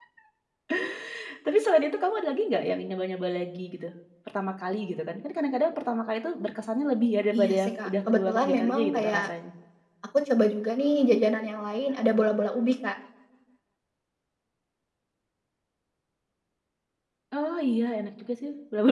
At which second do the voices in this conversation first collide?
7 s

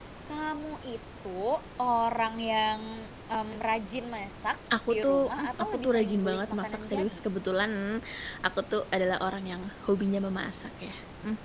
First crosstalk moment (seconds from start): 5 s

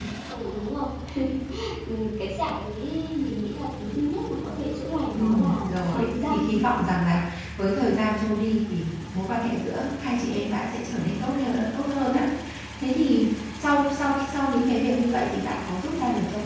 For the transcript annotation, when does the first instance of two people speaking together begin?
5 s

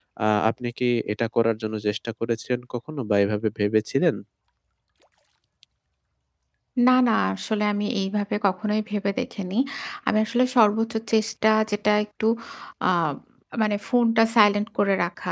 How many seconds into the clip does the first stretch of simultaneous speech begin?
none

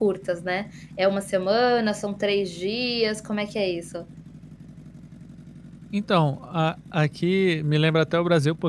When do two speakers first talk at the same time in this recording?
none

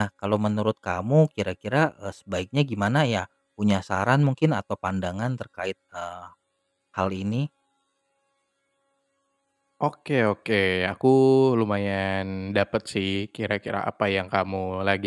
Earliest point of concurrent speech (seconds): none

